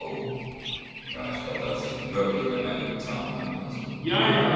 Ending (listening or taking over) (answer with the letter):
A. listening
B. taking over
B